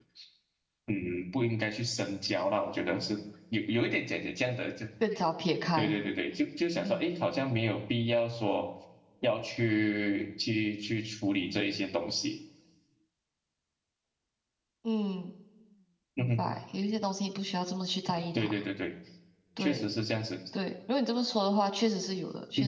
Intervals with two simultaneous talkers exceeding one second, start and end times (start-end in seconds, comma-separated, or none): none